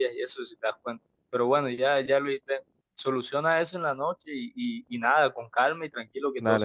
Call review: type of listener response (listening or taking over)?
taking over